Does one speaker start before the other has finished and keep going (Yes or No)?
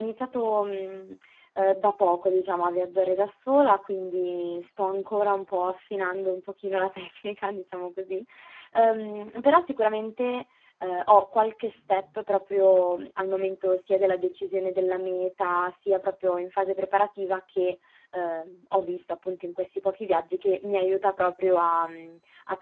No